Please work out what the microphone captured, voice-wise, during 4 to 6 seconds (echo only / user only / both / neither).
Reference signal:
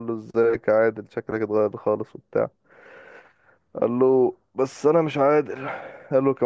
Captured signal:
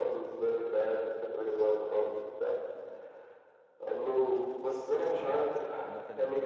both